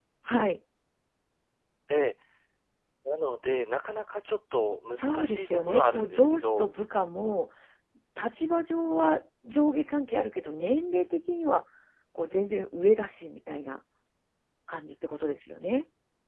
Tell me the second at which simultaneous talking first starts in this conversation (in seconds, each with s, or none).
5.0 s